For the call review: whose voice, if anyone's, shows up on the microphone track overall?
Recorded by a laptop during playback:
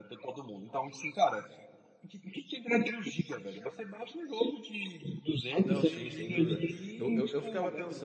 both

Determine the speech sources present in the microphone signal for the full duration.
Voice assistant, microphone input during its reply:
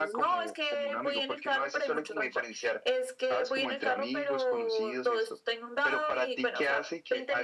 echo only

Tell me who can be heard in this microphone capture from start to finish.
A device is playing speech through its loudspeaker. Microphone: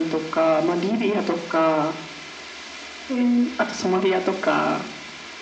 echo only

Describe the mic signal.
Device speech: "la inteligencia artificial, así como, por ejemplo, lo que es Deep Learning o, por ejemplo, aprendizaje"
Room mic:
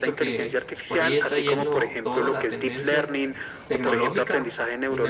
both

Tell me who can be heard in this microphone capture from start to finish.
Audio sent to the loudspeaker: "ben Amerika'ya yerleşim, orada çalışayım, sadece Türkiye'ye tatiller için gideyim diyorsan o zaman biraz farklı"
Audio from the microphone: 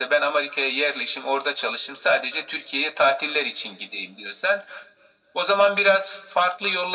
echo only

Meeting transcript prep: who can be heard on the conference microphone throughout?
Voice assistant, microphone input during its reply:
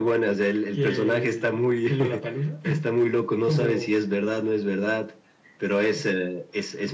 echo only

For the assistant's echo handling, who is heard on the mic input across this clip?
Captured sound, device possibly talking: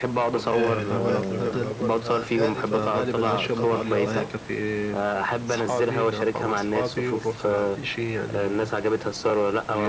both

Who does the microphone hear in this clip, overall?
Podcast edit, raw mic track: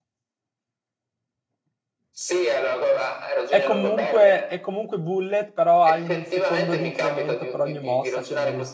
both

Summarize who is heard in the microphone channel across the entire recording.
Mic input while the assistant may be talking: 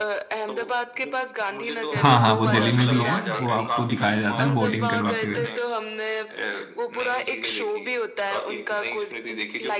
both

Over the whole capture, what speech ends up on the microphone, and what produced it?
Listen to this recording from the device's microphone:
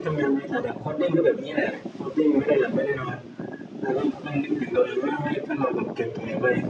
echo only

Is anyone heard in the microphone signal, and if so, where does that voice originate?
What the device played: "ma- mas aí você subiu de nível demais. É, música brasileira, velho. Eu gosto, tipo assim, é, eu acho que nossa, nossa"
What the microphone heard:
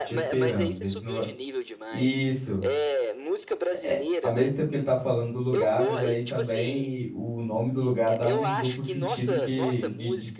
both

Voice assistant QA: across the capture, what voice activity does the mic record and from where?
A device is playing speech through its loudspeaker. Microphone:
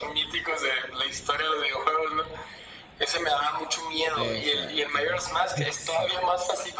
both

